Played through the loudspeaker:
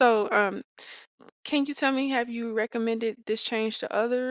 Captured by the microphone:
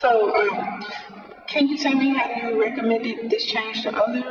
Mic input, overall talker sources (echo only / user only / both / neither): echo only